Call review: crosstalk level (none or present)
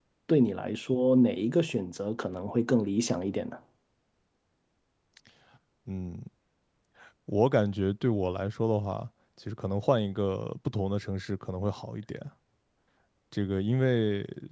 none